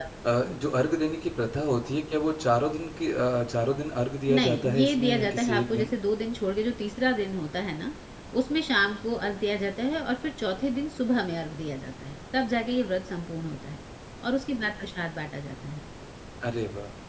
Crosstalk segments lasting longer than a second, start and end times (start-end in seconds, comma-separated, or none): 4.3-5.9